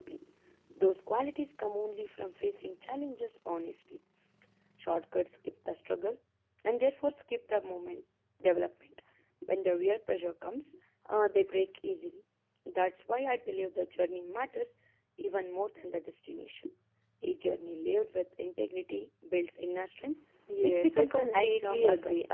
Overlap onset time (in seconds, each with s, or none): 20.5 s